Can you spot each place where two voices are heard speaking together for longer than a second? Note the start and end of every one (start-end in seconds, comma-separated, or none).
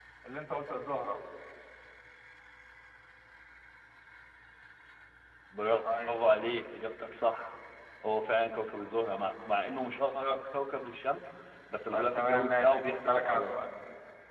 11.9-13.6